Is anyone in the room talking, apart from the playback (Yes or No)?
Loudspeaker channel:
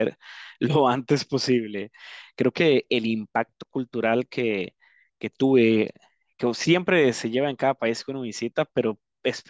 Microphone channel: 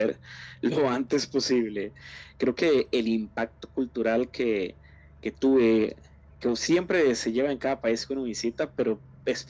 No